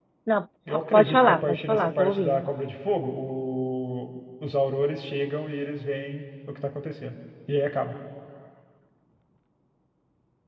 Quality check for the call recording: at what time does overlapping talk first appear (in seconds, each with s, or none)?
0.9 s